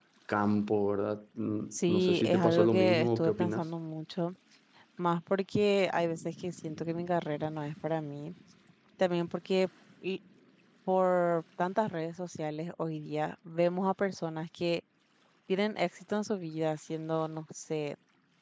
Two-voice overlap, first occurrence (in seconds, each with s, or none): 1.7 s